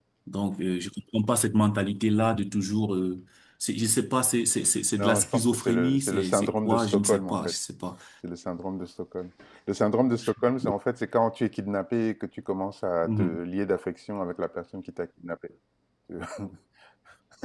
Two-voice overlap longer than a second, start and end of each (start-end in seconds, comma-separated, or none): 5.0-7.3